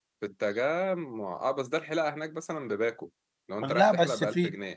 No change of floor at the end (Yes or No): No